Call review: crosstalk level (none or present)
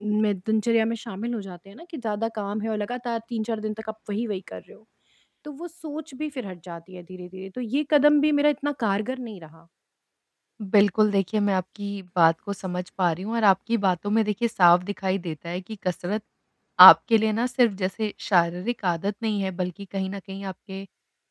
none